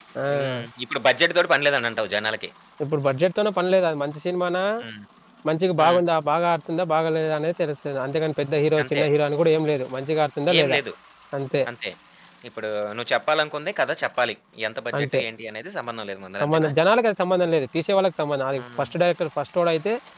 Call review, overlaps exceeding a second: none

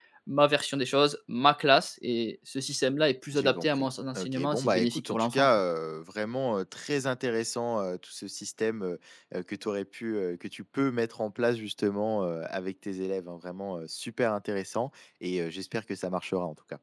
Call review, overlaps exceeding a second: present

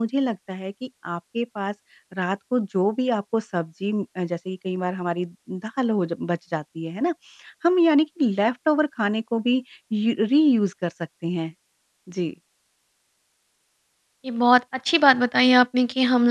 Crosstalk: none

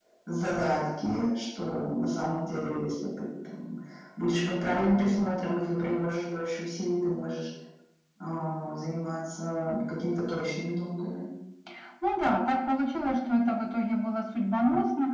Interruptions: none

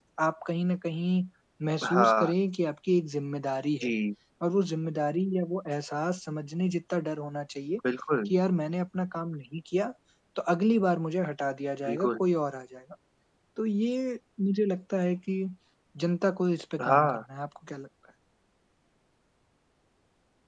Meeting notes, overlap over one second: none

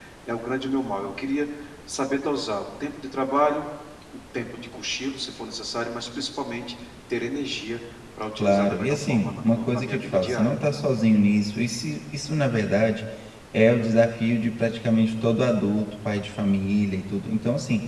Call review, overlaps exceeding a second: present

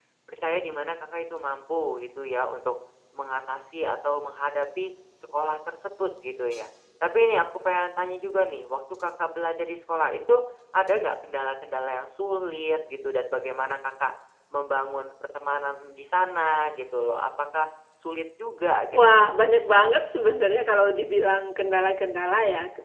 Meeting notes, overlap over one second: none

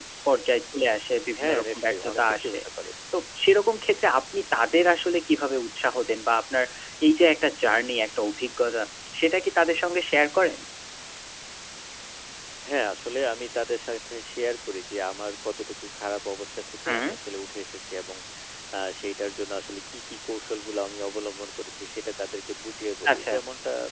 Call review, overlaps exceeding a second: present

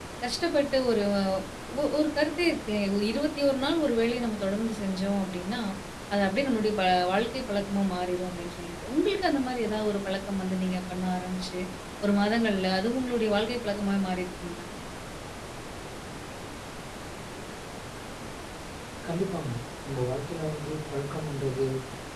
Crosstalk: none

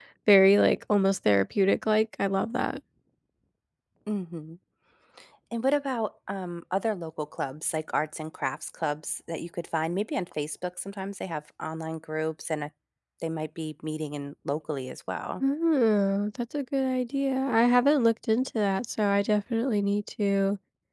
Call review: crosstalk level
none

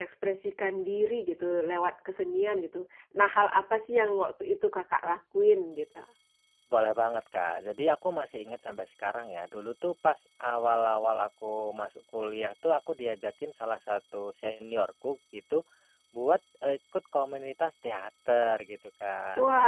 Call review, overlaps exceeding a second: none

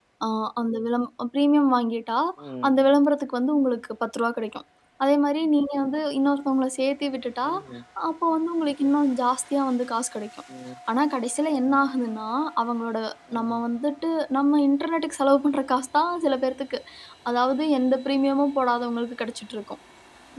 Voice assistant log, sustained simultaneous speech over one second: none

